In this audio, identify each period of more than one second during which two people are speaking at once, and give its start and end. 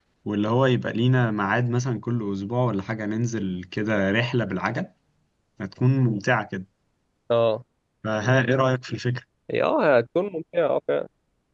none

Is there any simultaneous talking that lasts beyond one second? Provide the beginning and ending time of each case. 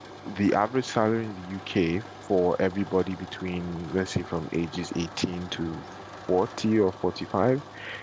none

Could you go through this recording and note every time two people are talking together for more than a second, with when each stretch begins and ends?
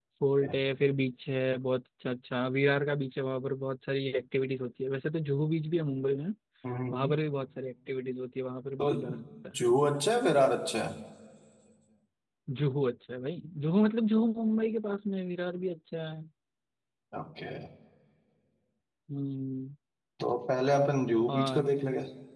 none

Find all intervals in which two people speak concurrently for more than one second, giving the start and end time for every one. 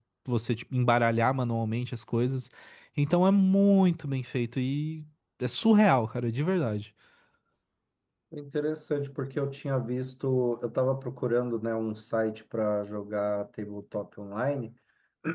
none

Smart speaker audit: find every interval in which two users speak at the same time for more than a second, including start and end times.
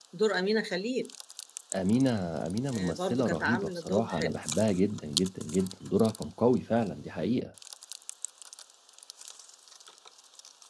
2.7-4.4

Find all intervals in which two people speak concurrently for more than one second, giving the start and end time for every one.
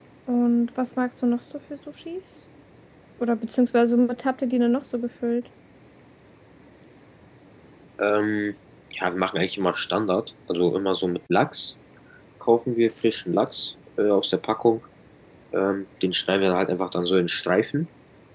none

